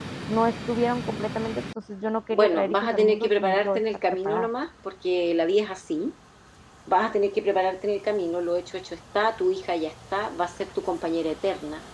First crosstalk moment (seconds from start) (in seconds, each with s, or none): 2.3 s